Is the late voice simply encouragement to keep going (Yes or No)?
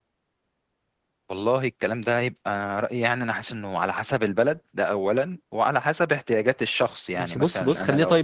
No